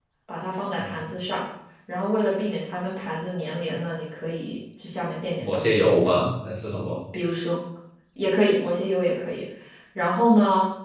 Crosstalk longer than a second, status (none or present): none